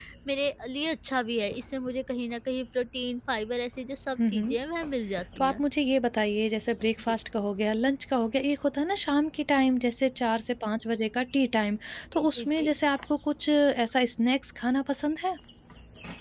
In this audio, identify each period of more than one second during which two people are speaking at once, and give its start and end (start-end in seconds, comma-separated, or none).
none